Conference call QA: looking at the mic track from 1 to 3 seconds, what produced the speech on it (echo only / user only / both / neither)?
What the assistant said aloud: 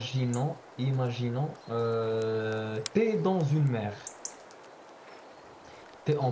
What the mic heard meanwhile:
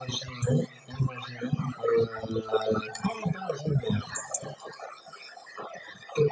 echo only